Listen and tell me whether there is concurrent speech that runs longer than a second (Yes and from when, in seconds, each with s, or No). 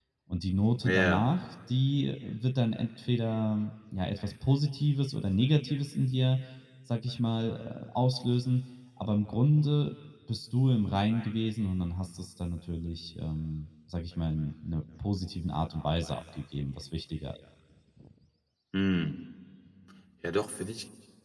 No